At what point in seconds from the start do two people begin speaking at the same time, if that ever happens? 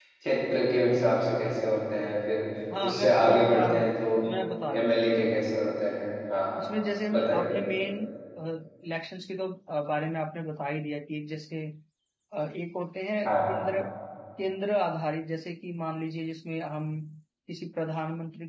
2.8 s

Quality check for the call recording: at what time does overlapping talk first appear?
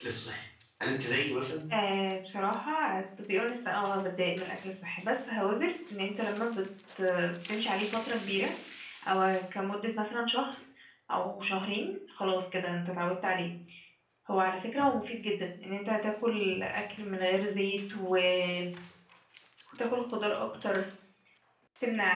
none

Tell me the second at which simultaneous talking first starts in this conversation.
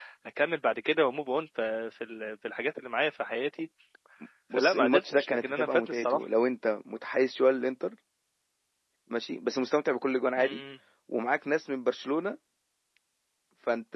4.6 s

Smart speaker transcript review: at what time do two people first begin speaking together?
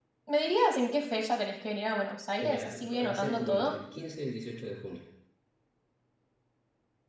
2.4 s

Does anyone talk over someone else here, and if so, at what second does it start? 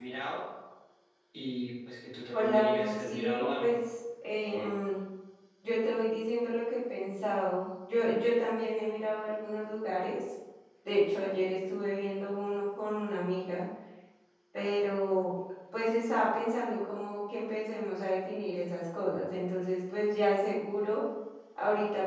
2.3 s

